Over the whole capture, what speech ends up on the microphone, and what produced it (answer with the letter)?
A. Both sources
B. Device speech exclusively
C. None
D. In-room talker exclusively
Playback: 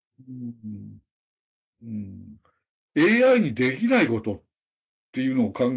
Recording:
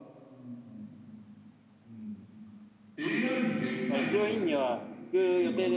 A